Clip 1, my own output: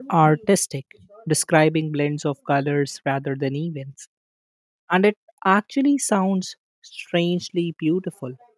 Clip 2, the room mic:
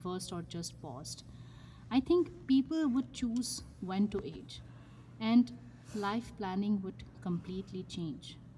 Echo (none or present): none